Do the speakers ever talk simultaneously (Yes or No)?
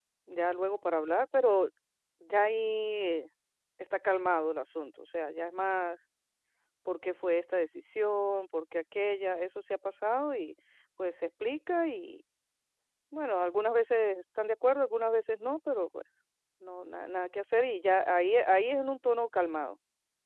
No